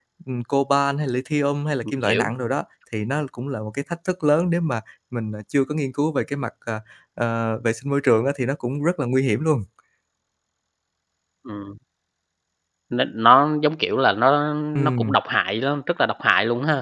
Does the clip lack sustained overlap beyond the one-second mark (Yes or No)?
Yes